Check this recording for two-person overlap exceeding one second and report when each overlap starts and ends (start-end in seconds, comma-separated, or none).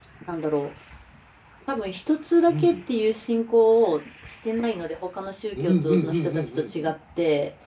5.5-6.9